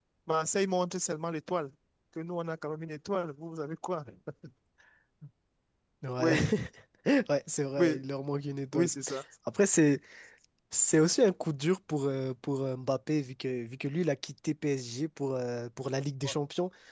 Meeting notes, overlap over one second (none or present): none